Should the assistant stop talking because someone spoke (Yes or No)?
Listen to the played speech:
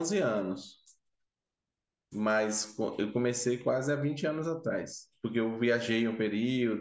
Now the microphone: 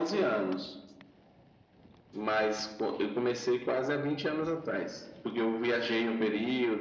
No